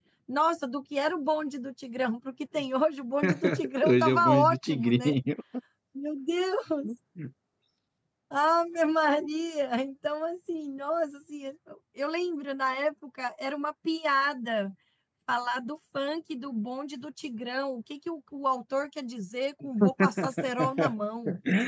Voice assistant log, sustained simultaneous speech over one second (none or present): present